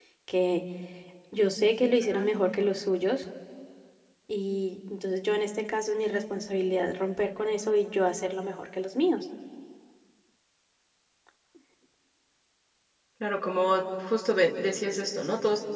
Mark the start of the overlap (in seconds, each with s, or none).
none